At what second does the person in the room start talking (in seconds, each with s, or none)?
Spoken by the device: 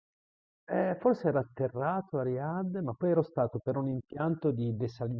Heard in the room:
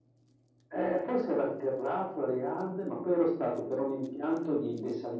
none